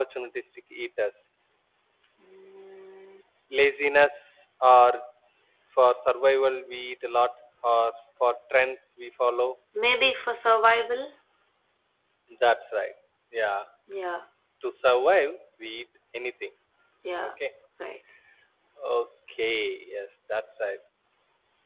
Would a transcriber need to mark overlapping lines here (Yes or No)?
No